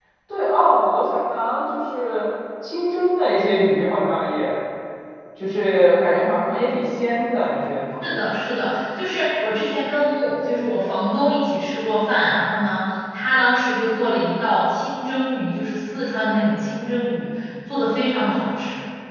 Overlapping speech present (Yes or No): No